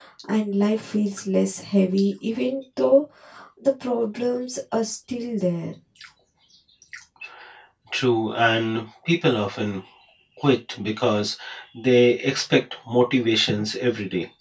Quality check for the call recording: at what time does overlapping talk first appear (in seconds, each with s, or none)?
none